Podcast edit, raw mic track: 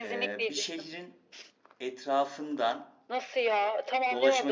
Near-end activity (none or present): present